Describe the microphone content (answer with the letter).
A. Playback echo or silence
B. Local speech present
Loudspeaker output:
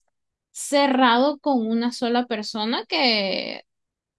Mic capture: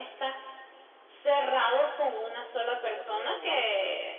B